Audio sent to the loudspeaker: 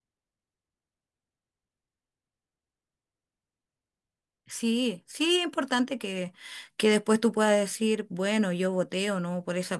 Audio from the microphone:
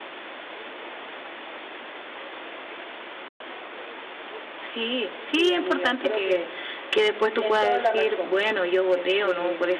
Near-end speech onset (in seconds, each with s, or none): 5.2 s